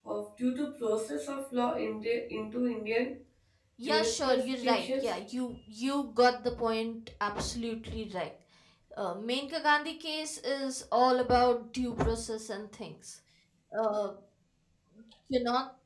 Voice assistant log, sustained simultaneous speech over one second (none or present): present